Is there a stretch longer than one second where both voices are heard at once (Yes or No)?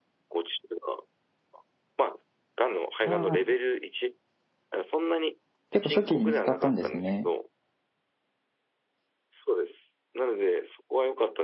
Yes